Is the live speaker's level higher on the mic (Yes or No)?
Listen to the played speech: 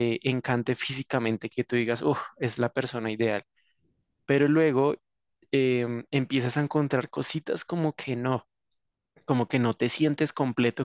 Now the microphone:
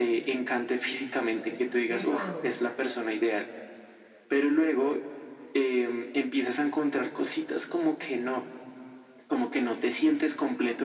No